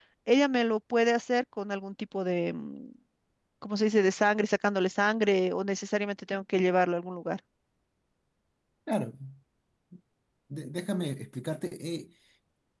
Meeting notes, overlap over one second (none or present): none